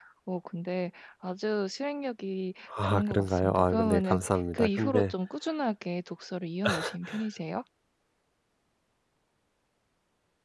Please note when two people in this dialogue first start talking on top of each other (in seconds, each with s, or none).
2.8 s